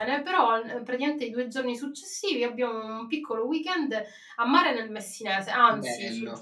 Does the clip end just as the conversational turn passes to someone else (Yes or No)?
No